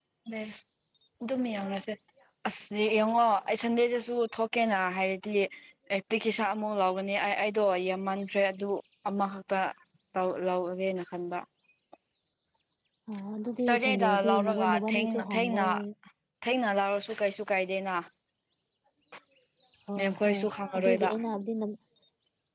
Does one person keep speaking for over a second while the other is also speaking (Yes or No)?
Yes